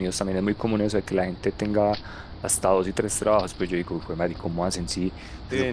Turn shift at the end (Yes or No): No